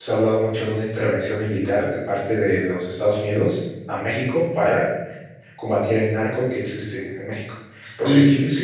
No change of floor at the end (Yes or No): Yes